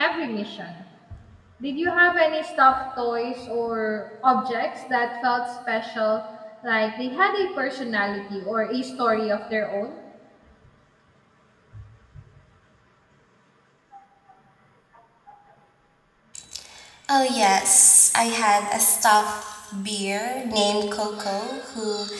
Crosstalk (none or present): none